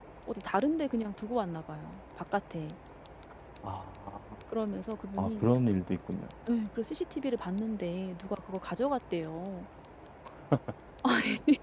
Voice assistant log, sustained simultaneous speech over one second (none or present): none